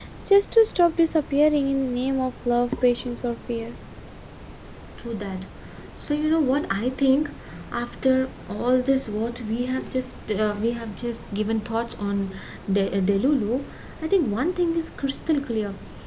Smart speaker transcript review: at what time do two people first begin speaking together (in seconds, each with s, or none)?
none